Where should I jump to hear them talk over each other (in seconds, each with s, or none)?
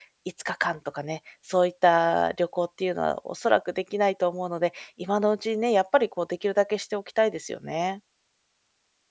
none